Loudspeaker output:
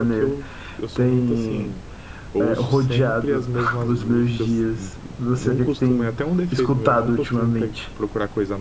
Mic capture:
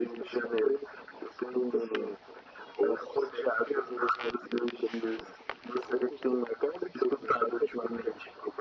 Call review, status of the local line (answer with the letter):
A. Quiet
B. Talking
A